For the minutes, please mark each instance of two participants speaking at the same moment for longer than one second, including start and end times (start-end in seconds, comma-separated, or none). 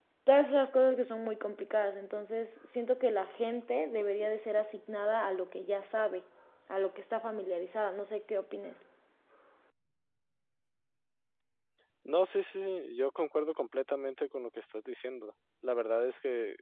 none